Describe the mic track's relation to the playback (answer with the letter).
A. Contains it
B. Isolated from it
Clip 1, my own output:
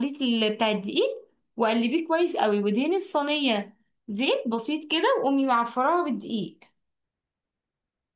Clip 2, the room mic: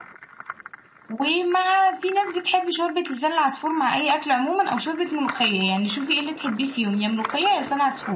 B